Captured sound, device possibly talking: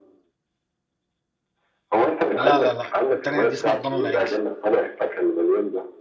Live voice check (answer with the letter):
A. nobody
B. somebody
B